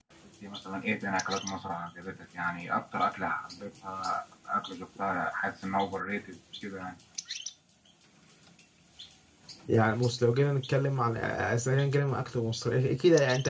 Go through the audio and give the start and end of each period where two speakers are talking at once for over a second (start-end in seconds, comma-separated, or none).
none